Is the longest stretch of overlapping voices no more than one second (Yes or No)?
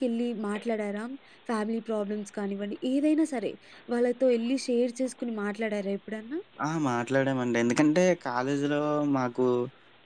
Yes